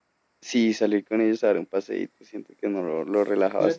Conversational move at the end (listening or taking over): taking over